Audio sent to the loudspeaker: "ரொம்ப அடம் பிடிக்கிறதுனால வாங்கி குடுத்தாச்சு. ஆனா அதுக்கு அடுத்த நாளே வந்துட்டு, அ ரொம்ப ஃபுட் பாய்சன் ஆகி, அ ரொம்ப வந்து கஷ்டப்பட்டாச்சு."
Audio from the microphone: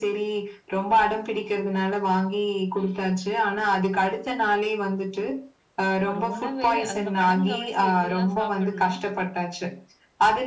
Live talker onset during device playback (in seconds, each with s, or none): 6.1 s